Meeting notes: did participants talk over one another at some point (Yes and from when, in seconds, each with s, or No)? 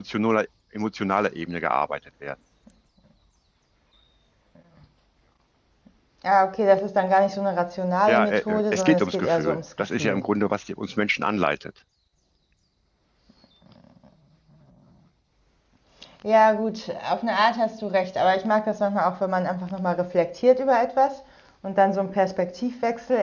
Yes, from 8.1 s